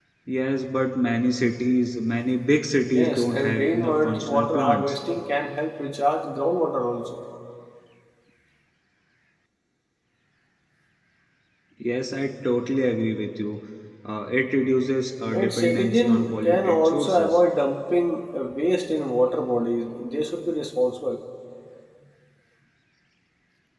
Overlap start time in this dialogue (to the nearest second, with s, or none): 3 s